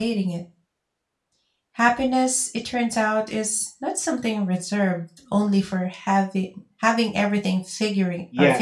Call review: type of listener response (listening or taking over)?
taking over